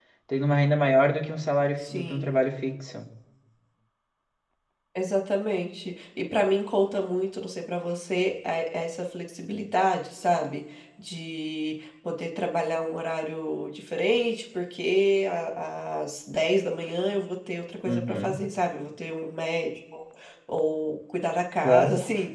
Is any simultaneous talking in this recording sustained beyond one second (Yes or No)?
No